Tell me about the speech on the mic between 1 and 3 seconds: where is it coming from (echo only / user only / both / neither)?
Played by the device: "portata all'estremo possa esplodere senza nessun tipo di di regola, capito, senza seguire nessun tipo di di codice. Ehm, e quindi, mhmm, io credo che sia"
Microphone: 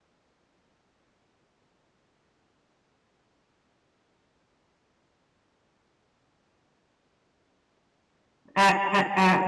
neither